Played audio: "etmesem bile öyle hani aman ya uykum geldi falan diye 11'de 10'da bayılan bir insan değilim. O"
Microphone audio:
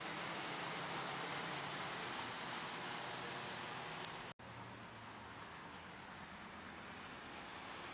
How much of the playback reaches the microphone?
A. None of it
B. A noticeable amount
A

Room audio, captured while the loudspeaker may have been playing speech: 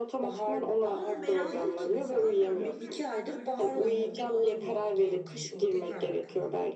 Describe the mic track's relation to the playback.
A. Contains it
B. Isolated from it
A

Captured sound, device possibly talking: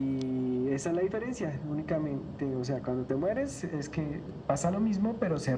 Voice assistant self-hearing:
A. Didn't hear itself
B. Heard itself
B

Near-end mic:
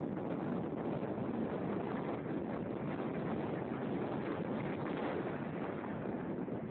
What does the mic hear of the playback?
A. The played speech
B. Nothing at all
B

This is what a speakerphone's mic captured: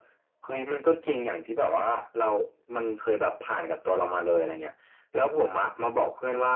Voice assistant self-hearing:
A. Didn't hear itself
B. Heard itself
B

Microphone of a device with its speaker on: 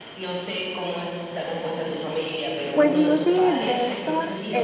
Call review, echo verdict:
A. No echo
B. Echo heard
B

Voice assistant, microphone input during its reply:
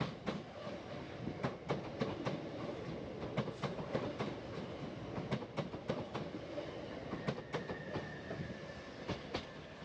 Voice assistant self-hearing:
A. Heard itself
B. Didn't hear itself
B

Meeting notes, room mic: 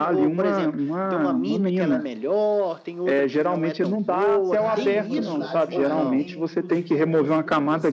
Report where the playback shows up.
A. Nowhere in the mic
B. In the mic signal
B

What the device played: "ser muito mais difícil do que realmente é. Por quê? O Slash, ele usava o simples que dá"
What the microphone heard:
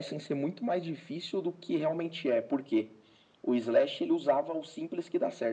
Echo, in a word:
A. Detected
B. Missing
A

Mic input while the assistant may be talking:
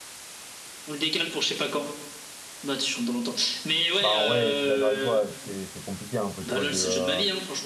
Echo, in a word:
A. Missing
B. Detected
B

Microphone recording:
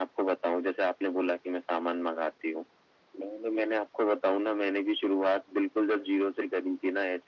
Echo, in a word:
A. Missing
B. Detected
B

